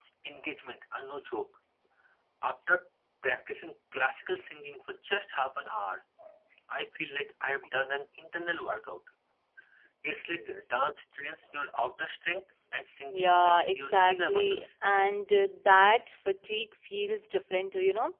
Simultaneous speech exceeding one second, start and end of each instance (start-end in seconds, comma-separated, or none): 13.1-14.6